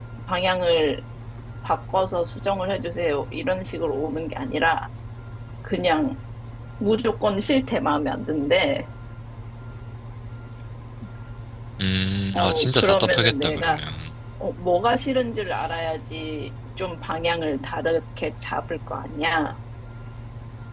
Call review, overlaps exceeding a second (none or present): present